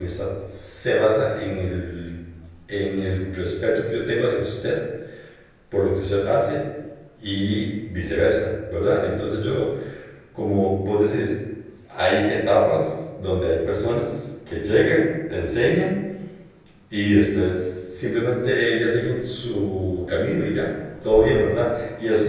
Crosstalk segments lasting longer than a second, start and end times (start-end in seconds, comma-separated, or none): none